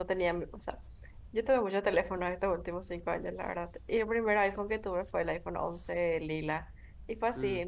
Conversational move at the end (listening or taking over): listening